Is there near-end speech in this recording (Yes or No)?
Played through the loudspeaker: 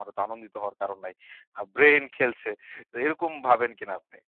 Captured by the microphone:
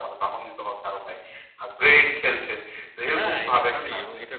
Yes